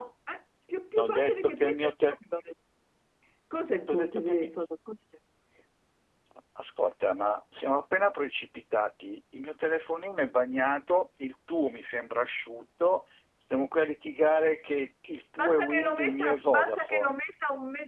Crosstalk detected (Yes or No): Yes